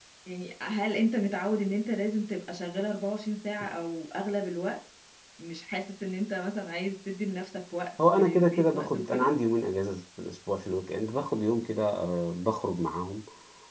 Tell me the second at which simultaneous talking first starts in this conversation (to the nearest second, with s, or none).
8 s